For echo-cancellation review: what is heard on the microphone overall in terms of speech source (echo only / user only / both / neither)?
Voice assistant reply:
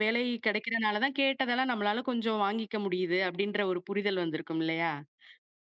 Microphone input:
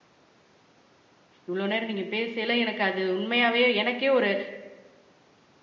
user only